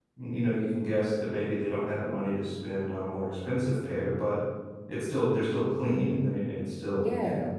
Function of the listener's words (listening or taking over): taking over